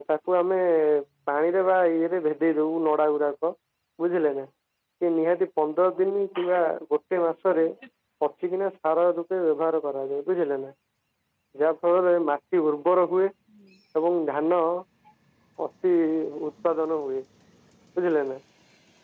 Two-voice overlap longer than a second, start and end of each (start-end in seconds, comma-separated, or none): none